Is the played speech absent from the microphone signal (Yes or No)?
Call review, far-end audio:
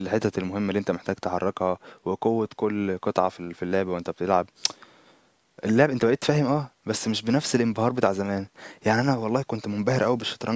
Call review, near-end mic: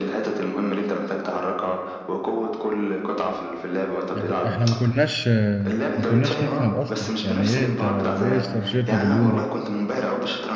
No